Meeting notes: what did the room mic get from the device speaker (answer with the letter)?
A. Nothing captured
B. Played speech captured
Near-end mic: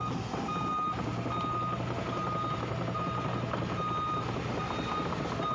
A